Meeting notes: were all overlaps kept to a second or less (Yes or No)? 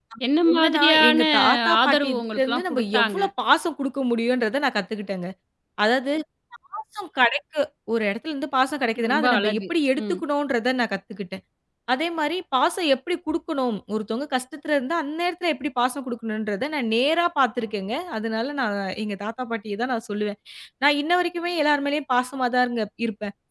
No